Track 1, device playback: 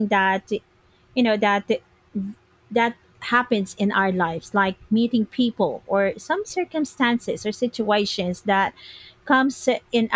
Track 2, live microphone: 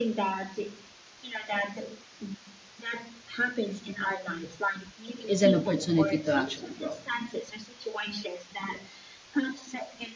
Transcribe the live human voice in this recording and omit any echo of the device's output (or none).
is an opportunity to actually grow.